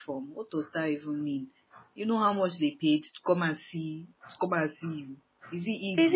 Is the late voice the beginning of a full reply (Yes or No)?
Yes